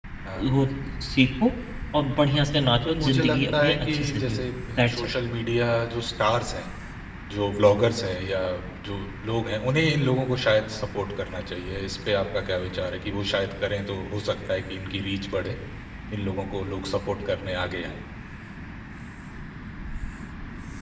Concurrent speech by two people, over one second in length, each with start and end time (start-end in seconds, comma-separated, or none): 2.9-5.1